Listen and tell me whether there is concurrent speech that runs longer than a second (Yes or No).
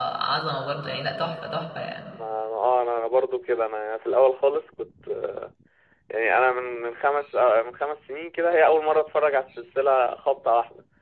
No